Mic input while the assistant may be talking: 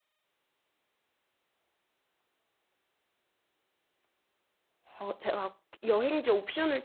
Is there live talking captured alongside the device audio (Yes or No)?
Yes